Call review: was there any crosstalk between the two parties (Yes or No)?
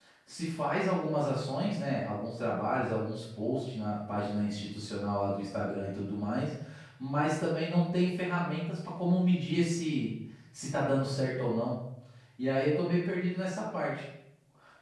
No